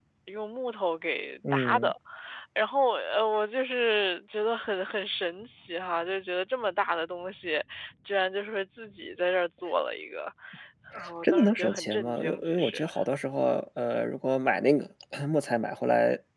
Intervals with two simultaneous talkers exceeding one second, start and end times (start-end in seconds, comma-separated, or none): 11.2-12.8